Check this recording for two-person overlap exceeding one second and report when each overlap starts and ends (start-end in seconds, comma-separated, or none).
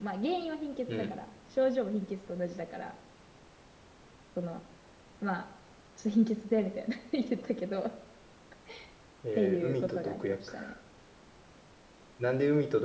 9.3-10.5